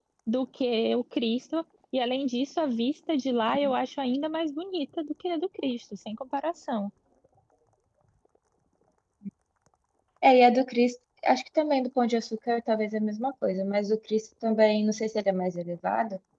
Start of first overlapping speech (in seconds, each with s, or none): none